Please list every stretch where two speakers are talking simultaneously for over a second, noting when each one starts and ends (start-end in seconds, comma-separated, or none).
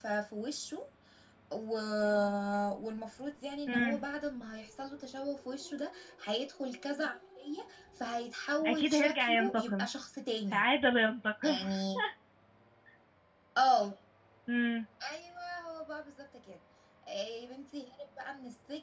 8.7-9.9